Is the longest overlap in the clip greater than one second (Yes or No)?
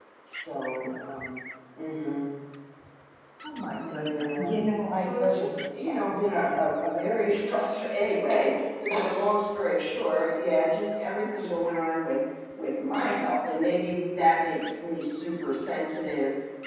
Yes